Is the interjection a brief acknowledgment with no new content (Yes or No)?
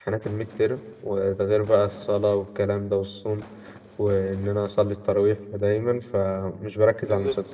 Yes